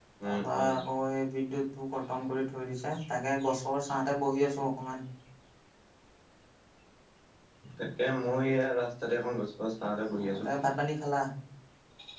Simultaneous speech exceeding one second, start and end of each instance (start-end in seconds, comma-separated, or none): none